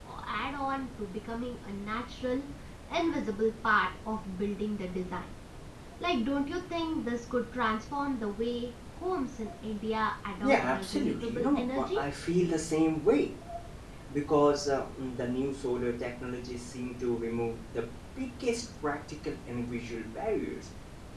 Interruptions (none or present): present